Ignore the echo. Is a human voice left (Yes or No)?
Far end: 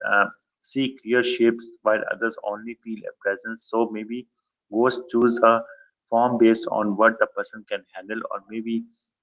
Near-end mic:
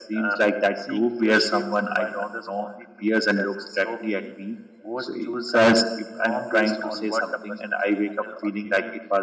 Yes